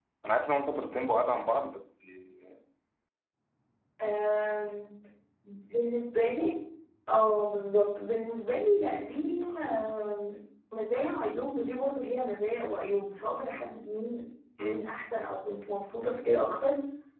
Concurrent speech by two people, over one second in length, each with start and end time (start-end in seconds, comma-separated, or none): none